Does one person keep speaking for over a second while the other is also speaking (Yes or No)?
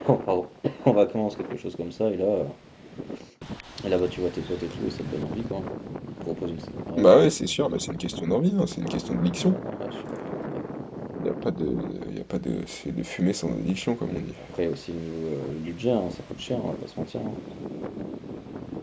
No